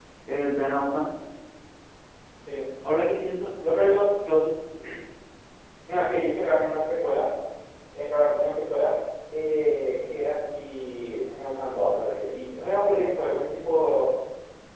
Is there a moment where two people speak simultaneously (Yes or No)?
No